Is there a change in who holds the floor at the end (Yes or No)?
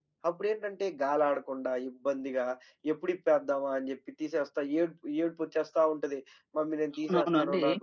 Yes